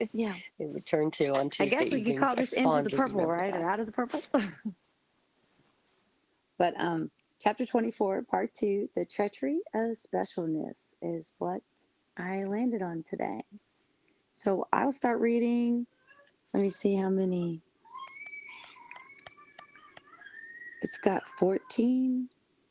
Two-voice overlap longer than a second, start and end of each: 1.6-3.6

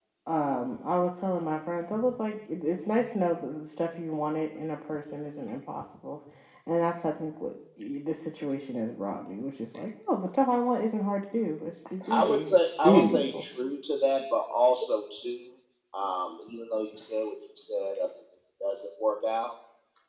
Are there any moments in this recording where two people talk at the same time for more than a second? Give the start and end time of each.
12.1-13.4

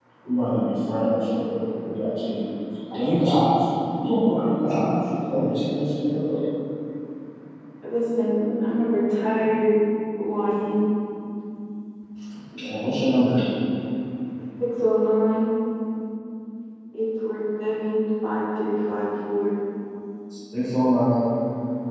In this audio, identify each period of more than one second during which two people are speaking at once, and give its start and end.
none

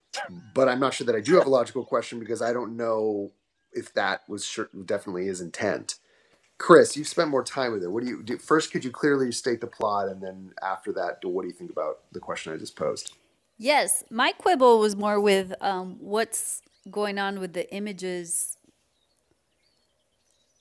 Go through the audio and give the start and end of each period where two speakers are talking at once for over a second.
none

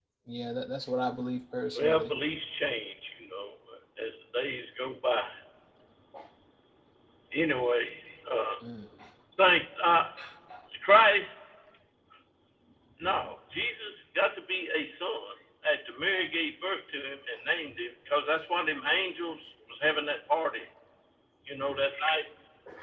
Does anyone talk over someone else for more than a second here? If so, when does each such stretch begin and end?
none

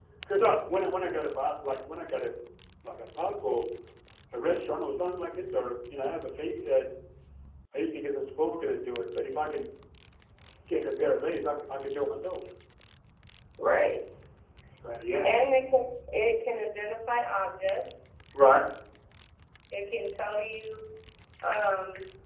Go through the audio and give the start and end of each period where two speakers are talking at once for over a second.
none

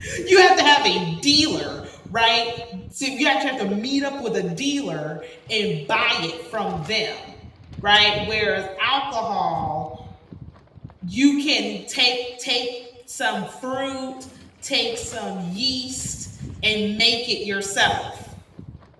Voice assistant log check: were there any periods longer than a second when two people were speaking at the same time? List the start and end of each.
none

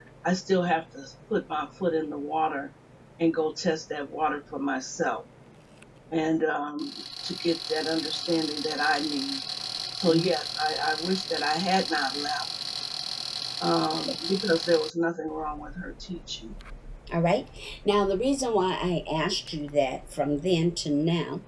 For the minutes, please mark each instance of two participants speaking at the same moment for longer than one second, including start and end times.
none

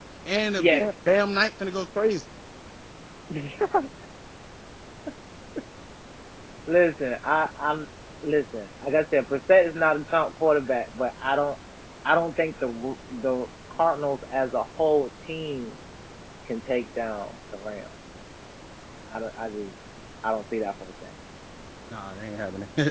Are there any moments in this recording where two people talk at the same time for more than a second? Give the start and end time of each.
none

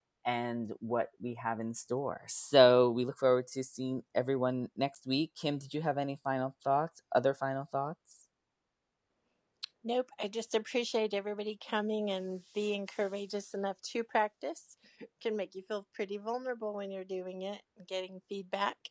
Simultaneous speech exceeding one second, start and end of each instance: none

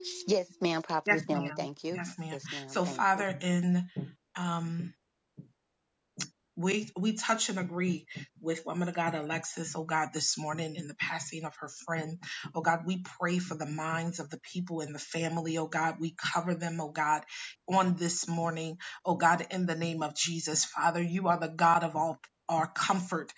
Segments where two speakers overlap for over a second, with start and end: 1.1-3.2

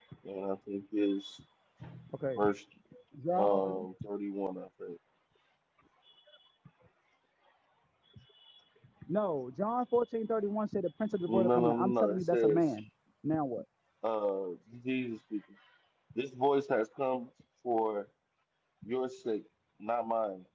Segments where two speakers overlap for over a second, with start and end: 11.3-12.6

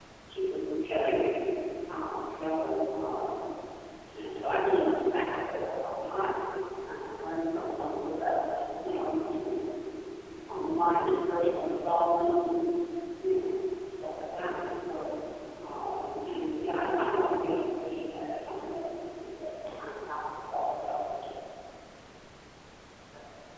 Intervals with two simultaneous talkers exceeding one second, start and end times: none

